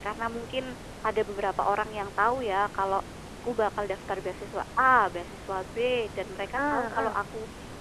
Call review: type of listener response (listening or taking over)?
listening